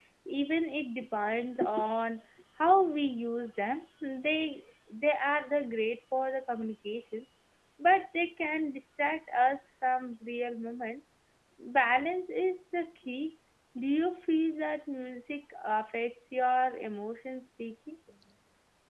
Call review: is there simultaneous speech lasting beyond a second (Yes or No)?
No